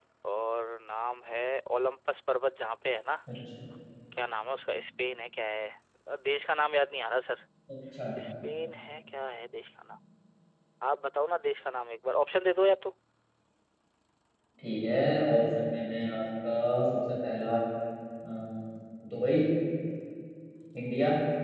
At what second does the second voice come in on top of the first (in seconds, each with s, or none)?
none